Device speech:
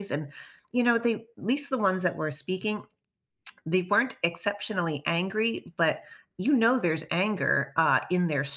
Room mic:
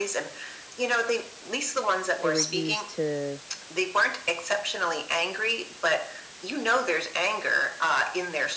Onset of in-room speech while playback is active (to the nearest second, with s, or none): 2 s